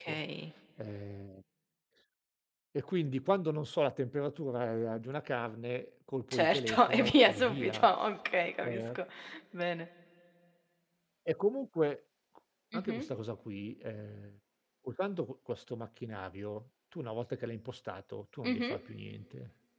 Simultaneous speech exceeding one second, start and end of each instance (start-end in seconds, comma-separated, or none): 6.3-7.9